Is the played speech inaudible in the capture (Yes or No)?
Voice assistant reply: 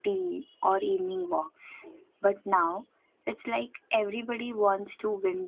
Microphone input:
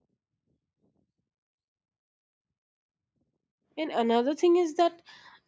Yes